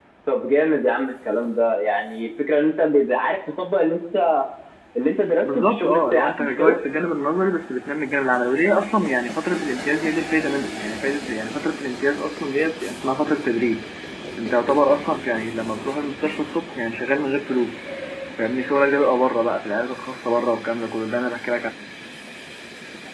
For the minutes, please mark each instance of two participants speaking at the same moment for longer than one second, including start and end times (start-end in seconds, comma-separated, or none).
5.4-6.8